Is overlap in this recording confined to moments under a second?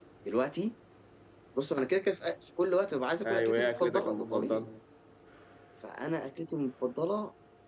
No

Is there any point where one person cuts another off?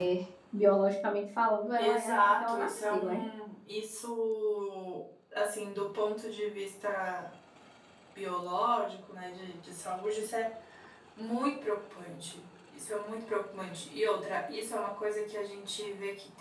Yes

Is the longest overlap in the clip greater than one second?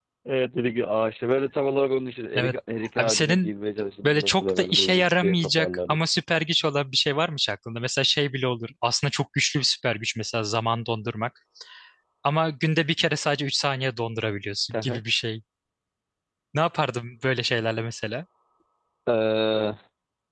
Yes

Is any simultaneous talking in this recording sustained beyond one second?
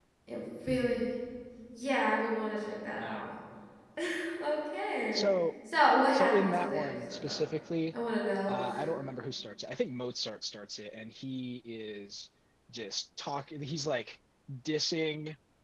Yes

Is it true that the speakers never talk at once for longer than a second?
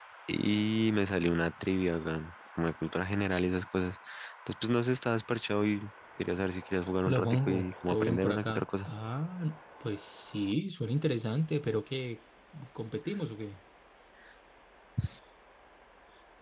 No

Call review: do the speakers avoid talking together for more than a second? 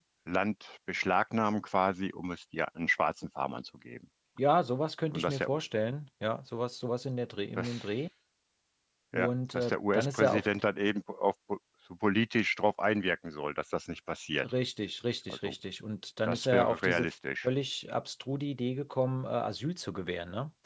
No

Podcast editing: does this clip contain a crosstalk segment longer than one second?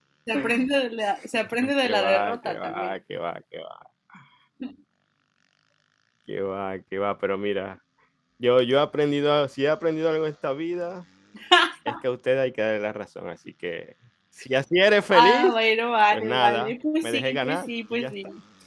Yes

